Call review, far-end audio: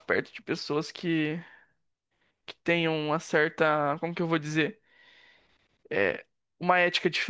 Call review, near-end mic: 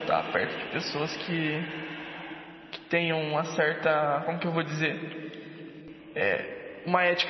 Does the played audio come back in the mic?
Yes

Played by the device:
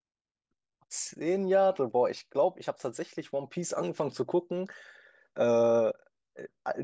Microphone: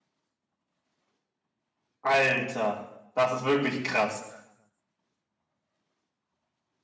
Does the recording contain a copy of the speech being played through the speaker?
No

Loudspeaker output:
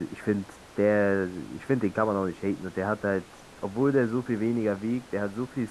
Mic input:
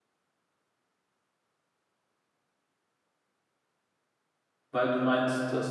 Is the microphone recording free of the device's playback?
Yes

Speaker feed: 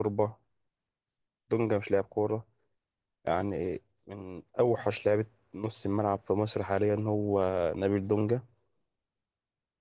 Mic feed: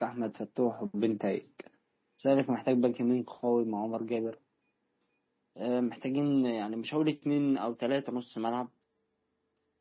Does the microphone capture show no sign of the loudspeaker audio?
Yes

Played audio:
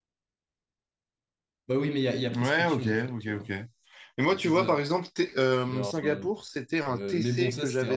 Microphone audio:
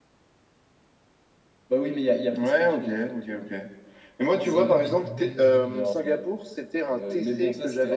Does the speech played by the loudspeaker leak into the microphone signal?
Yes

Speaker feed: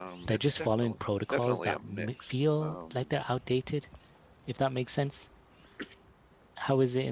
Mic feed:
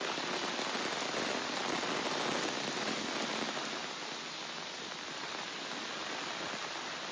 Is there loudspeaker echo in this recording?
No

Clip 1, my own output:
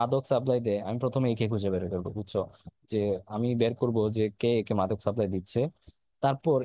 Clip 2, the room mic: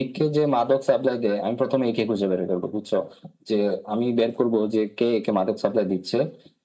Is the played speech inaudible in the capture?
No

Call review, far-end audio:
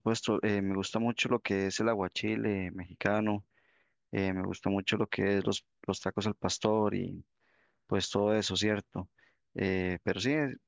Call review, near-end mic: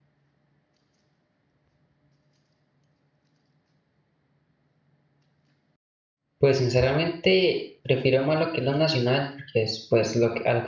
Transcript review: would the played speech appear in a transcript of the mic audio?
No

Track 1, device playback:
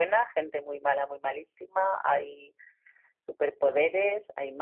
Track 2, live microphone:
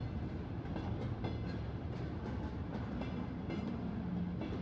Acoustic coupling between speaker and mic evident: No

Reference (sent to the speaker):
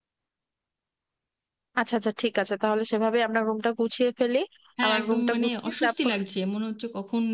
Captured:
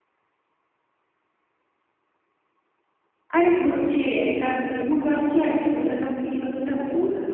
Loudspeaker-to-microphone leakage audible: No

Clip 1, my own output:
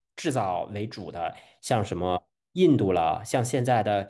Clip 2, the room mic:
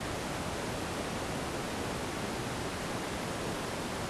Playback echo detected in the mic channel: No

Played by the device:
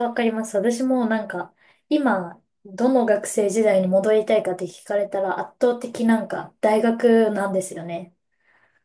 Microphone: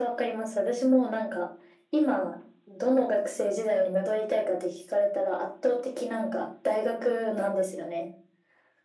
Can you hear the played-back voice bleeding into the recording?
Yes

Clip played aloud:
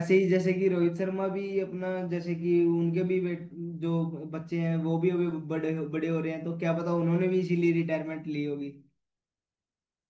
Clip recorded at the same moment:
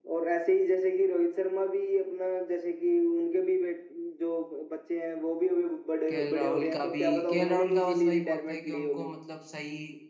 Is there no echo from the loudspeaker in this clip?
No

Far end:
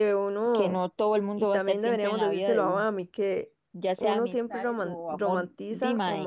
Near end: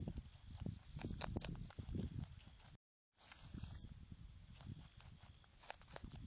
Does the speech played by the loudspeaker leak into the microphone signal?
No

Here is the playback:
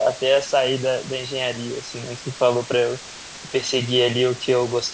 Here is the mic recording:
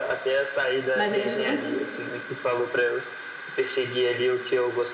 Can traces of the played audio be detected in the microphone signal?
Yes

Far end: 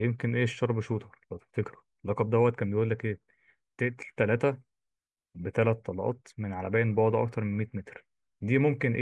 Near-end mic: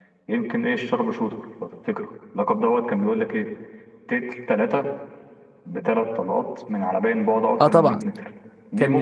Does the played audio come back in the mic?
Yes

